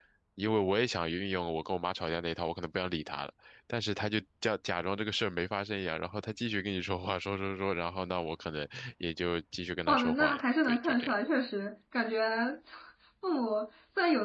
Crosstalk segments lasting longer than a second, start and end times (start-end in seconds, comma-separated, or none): 9.9-11.1